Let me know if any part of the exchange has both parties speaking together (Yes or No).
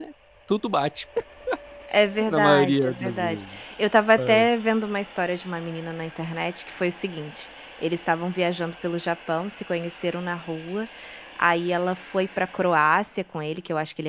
Yes